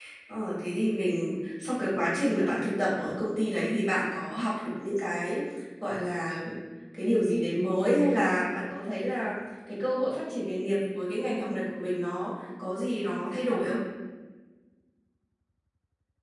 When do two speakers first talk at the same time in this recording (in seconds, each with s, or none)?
none